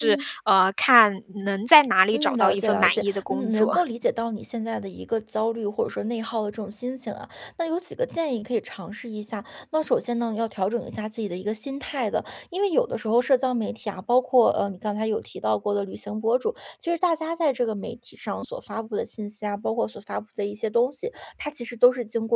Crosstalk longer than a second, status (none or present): present